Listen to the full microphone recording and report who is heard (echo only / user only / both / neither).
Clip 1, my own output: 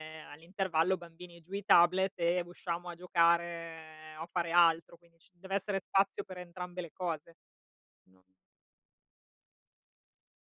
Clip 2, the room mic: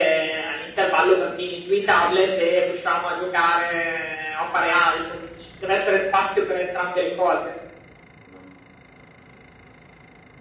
echo only